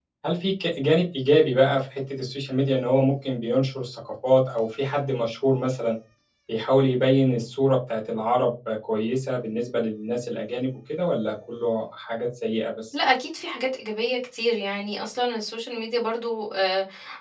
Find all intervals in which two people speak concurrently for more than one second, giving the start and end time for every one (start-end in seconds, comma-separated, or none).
none